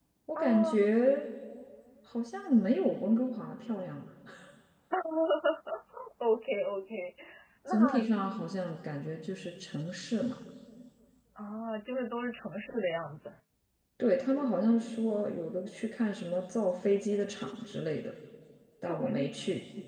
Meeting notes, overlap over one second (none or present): none